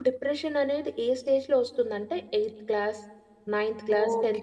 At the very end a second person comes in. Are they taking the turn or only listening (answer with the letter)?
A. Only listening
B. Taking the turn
B